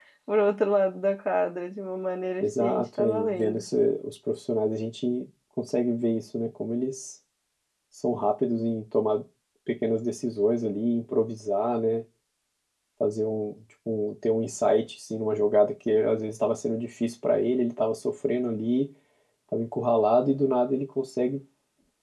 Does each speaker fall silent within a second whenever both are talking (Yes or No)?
No